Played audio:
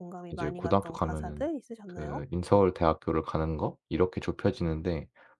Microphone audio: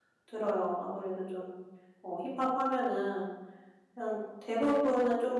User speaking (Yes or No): Yes